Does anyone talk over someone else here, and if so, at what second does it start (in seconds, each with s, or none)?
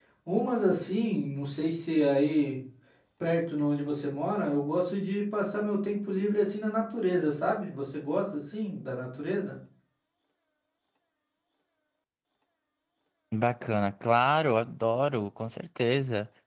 none